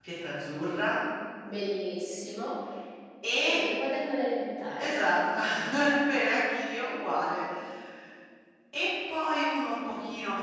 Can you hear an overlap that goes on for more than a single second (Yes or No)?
No